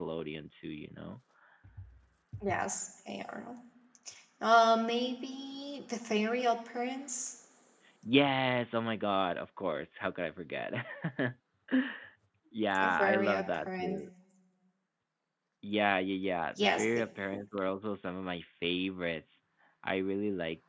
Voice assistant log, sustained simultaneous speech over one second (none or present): present